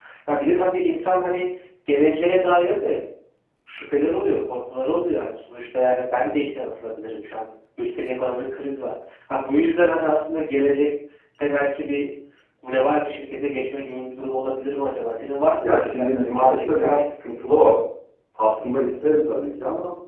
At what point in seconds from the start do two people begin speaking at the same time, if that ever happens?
16 s

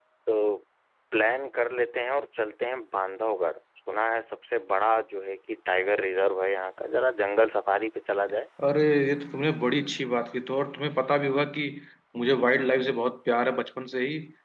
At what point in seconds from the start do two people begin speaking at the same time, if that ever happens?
none

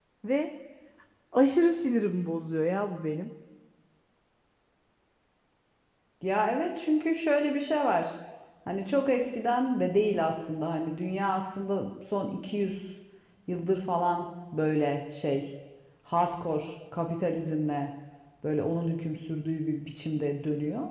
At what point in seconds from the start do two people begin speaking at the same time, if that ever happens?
none

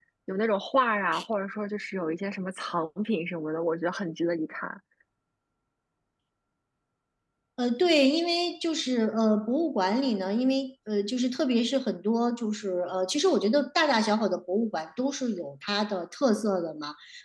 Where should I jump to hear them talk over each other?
none

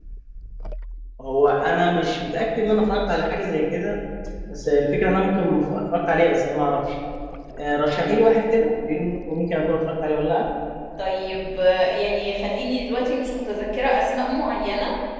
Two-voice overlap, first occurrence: none

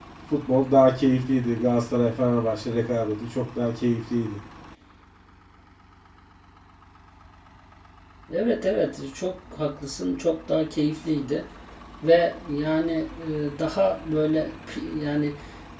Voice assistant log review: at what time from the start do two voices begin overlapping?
none

